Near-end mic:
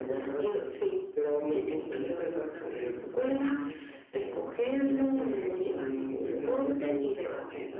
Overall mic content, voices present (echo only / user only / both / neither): both